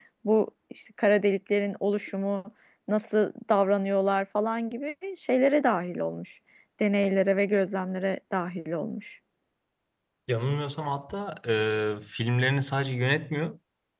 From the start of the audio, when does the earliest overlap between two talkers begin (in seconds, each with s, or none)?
none